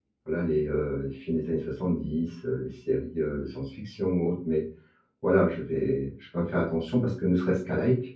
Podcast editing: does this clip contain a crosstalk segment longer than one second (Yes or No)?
No